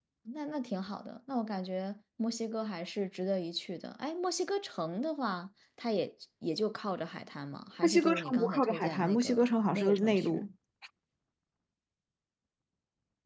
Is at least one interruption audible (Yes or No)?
Yes